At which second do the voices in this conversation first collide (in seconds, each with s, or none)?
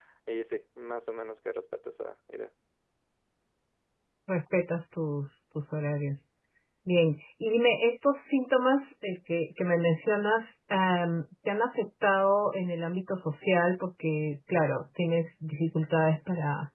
none